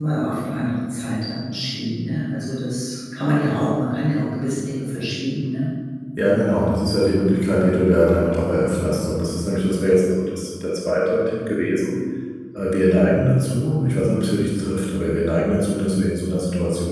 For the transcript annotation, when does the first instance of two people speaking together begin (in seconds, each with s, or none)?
none